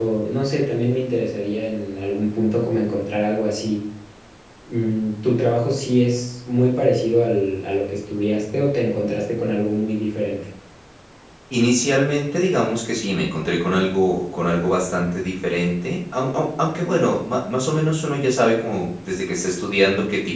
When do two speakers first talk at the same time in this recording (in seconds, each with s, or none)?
none